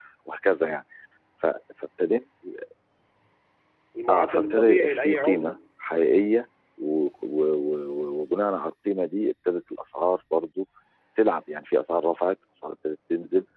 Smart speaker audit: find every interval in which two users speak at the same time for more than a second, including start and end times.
4.1-5.6

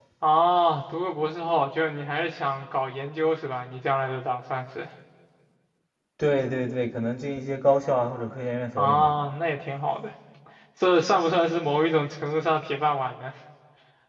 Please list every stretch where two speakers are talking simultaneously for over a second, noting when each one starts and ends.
none

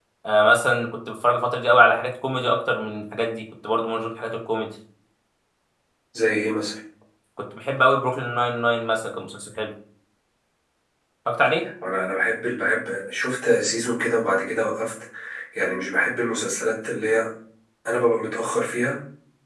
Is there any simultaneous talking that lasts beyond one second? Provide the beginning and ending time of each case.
none

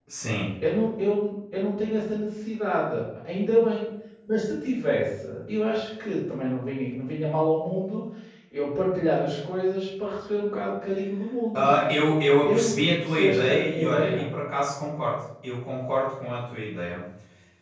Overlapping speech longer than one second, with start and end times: 12.4-14.2

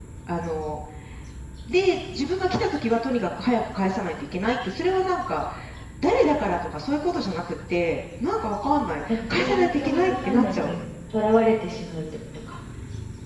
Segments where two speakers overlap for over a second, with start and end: 9.1-10.7

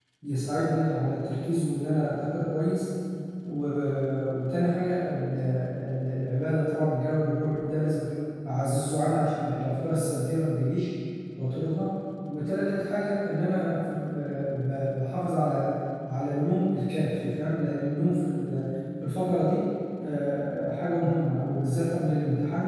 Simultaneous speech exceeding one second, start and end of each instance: none

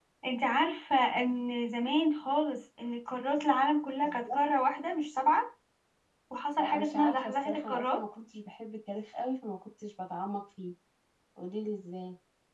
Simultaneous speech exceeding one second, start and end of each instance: 6.6-8.0

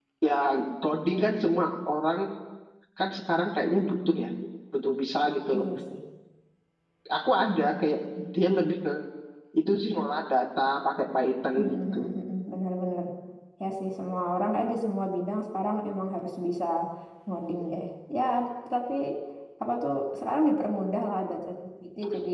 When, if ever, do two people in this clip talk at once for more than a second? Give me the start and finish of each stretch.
none

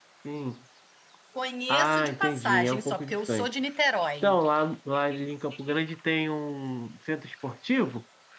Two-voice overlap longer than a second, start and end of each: 1.7-3.5

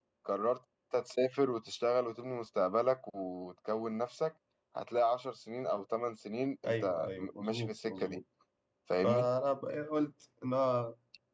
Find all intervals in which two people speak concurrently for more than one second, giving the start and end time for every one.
6.7-8.2

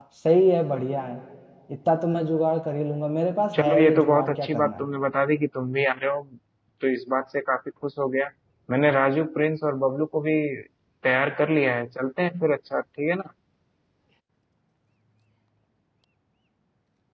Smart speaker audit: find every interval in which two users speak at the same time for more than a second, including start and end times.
3.5-4.8

